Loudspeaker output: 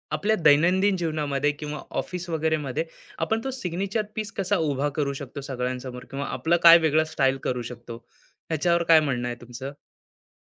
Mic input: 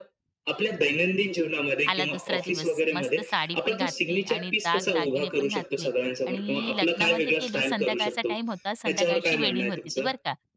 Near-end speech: present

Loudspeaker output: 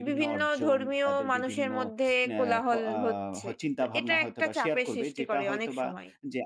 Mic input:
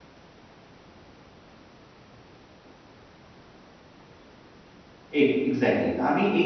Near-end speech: present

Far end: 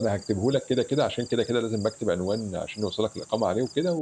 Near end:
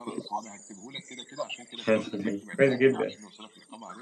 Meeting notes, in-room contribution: present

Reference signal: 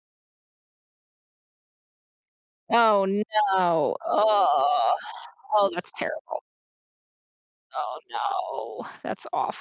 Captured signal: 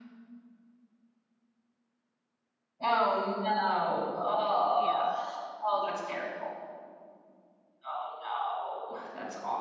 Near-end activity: present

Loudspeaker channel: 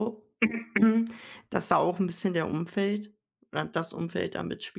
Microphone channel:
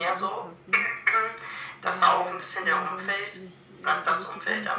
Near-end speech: present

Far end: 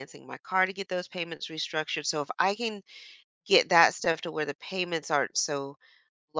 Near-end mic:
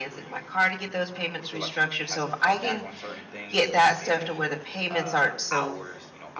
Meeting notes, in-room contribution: present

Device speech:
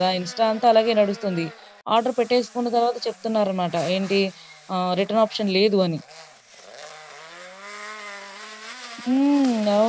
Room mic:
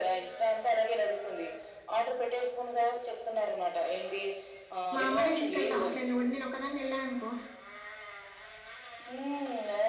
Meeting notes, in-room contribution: present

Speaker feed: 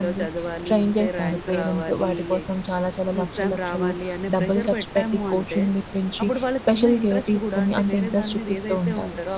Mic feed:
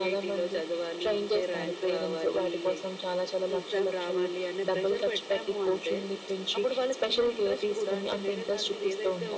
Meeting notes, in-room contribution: none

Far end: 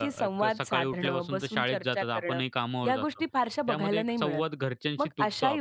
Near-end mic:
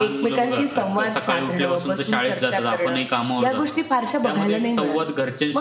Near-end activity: none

